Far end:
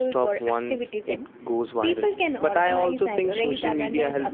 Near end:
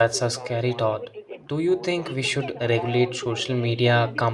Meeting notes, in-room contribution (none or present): present